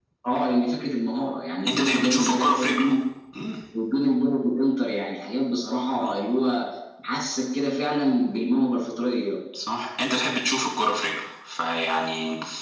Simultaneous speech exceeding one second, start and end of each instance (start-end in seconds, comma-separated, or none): 1.7-3.0